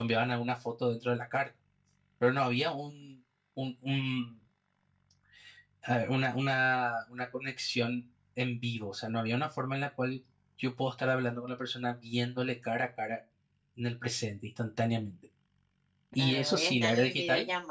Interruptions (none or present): present